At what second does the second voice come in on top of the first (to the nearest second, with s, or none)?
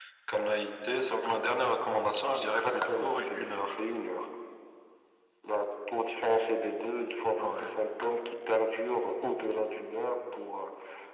2 s